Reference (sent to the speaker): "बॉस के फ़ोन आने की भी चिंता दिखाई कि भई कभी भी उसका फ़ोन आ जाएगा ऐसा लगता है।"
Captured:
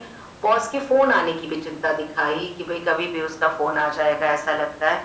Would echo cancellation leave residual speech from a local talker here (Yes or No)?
No